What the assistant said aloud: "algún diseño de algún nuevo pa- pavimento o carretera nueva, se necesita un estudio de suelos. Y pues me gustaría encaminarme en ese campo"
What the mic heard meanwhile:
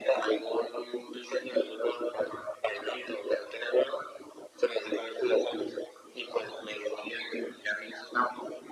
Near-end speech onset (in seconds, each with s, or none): none